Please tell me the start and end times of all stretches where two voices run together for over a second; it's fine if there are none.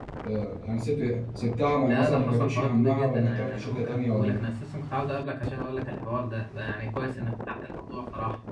1.9-4.4

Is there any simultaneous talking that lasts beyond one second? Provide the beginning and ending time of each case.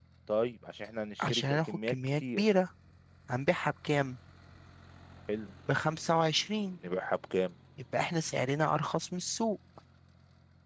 1.2-2.4

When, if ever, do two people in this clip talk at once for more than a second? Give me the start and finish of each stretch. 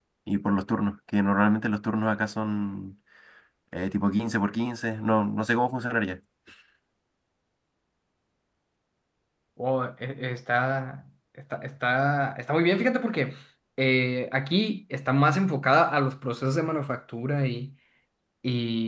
none

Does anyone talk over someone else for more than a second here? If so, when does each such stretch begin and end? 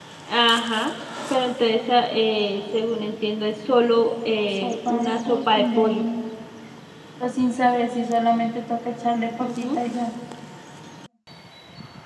4.5-5.8

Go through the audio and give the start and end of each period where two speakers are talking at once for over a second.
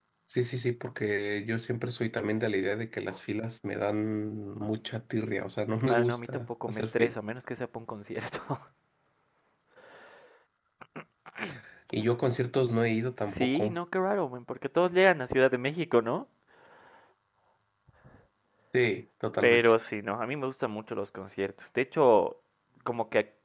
5.9-7.1

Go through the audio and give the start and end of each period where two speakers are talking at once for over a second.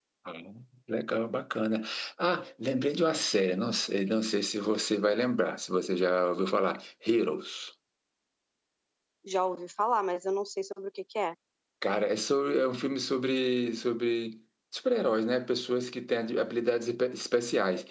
none

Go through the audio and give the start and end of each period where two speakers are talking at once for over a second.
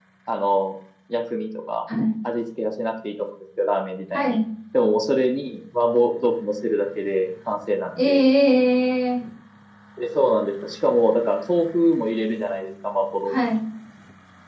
none

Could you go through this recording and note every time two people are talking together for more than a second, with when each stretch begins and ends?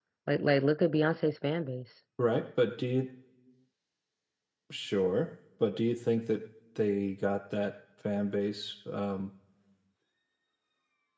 none

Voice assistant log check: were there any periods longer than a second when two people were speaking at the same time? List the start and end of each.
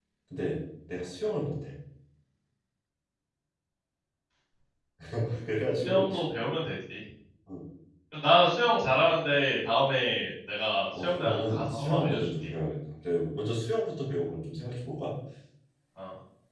11.0-12.5

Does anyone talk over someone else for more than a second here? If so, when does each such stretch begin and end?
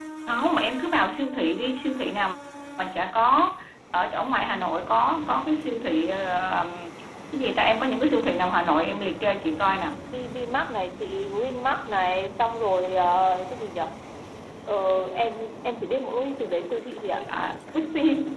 none

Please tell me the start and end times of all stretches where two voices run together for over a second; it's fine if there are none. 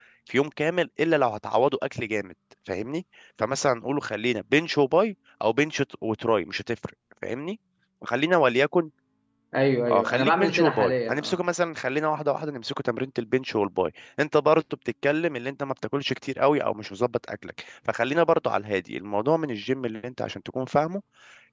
9.9-11.4

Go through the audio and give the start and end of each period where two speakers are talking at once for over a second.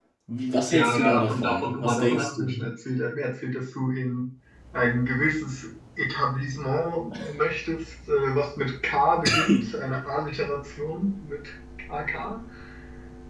0.7-2.6

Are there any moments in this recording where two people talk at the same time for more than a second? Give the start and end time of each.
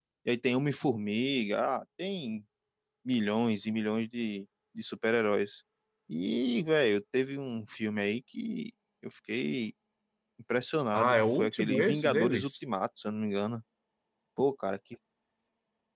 10.9-12.5

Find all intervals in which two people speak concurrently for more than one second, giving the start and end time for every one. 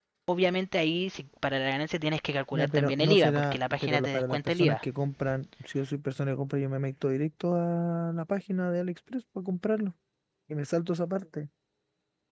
2.5-4.8

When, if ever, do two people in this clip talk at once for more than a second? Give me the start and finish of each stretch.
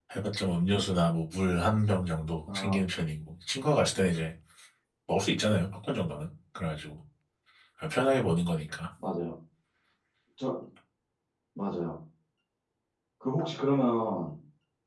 none

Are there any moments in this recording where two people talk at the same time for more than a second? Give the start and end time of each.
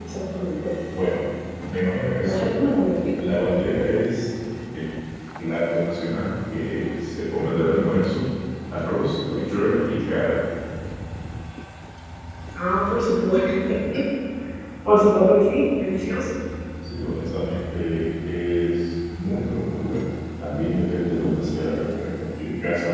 none

